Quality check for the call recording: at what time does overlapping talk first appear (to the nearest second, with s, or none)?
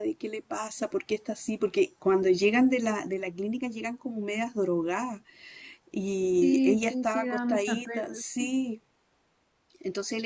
6 s